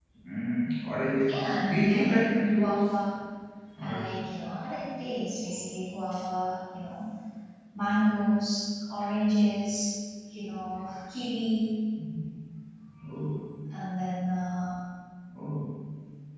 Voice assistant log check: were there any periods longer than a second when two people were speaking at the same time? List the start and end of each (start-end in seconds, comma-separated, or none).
1.3-3.0